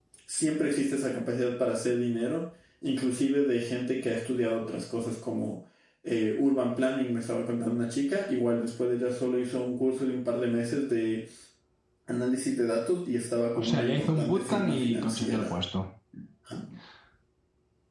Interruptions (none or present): present